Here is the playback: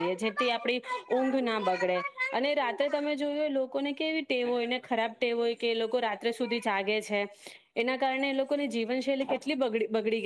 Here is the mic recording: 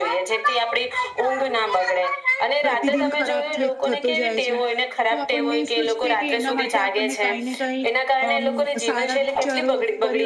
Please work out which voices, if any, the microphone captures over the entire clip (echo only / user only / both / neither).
both